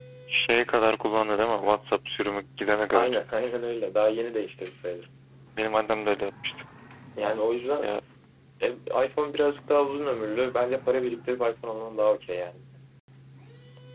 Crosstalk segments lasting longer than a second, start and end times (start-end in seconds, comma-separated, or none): none